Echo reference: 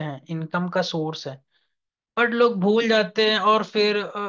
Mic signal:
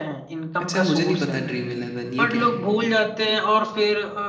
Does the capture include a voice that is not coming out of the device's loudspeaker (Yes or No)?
Yes